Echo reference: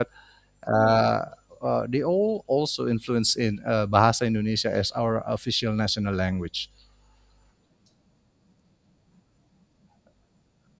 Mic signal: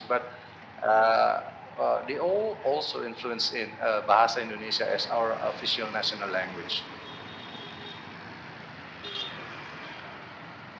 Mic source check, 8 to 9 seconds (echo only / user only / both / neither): neither